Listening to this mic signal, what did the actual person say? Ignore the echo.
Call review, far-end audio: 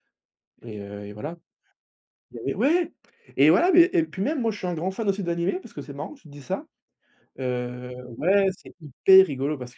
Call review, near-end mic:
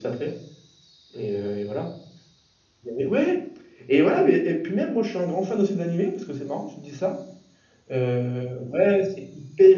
none

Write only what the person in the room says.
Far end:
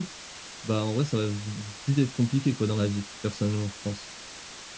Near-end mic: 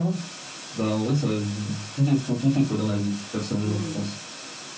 Mmh.

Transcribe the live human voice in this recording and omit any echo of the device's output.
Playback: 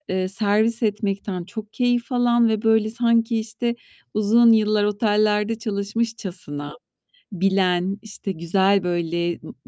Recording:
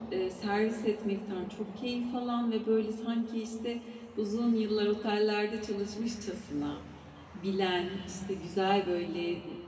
none

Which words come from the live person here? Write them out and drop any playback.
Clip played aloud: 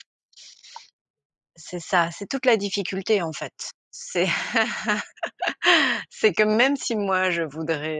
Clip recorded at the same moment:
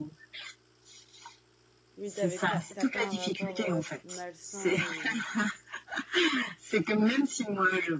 mais tu avais pas tu as pas un rapport, heu, malsain aux

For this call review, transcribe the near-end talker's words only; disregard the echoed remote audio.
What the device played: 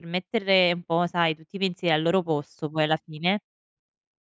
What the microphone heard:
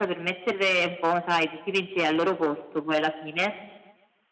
none

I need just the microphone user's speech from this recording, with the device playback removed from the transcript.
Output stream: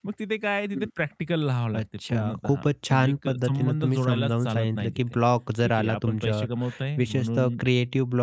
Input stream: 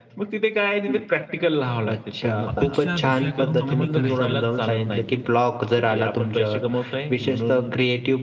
अपेक्षा दुसऱ्याकडून कमी करायच्या,

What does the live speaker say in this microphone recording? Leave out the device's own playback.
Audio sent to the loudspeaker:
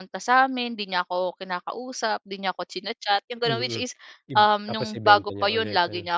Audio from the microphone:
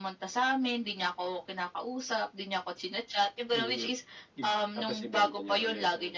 none

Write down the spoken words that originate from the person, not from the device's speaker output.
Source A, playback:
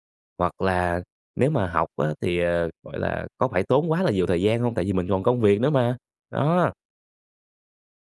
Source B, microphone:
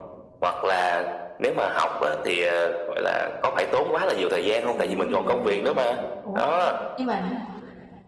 Sướng vui luôn. Ủa? Nhưng mà

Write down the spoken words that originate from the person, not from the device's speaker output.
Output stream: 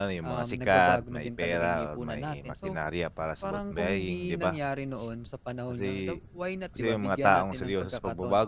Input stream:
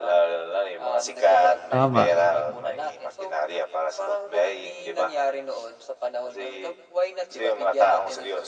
Tama.

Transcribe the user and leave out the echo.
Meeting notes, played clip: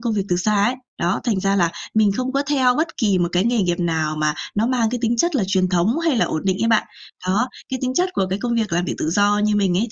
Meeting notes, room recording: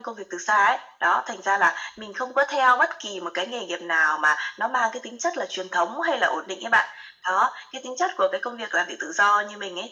none

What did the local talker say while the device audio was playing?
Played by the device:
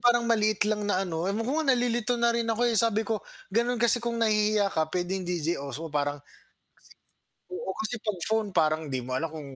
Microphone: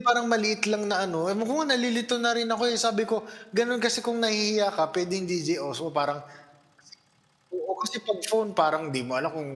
none

